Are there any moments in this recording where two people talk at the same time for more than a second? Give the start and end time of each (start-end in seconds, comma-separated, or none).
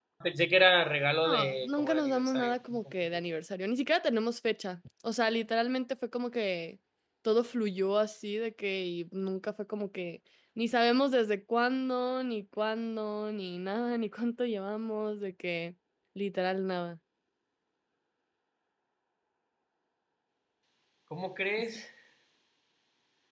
1.2-2.9